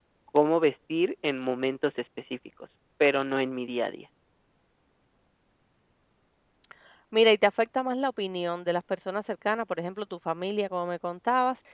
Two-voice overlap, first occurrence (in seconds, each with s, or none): none